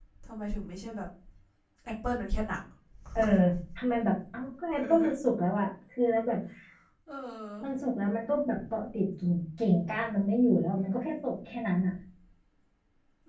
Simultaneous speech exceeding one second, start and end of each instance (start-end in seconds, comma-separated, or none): none